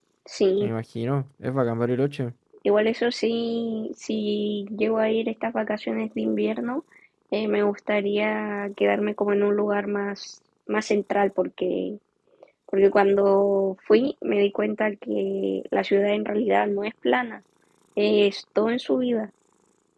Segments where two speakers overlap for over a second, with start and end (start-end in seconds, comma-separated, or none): none